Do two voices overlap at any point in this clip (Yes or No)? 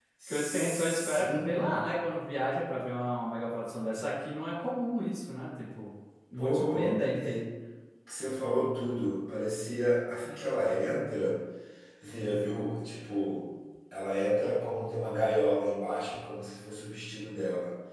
Yes